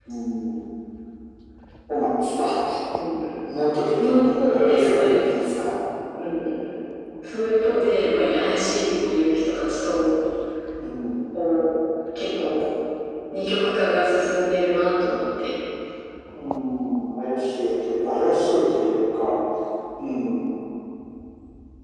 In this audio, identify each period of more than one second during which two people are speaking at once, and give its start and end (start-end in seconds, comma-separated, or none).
4.0-5.5